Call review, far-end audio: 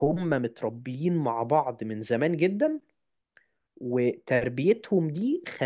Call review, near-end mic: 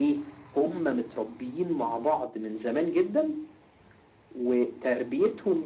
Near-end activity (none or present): none